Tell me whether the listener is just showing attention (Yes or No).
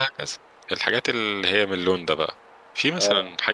Yes